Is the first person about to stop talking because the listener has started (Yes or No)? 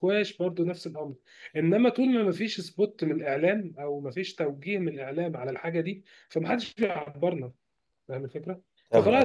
No